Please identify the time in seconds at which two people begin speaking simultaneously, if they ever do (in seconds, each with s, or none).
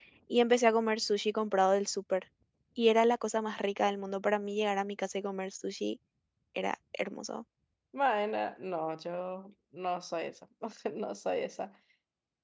none